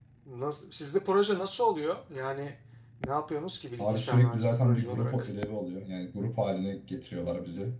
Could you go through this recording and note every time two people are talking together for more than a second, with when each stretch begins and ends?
3.8-5.3

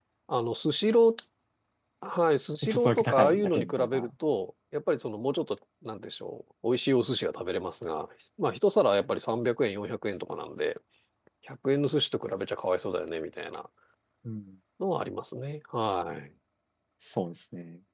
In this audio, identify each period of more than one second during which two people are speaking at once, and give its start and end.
2.7-4.1

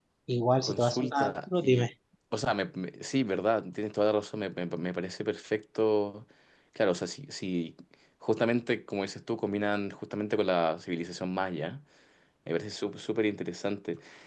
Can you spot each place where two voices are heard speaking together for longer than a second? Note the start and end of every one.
0.6-1.9

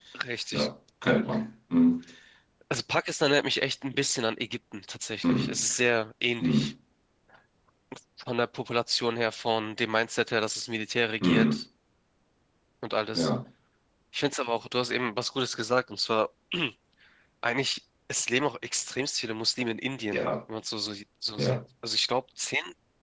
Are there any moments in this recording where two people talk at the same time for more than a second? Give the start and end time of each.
none

